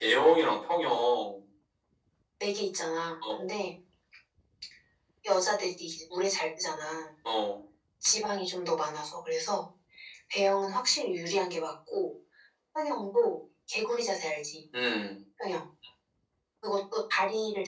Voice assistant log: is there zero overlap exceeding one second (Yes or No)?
Yes